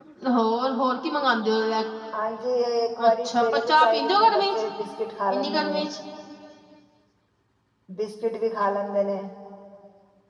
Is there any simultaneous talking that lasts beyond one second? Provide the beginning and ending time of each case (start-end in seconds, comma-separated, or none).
3.1-4.6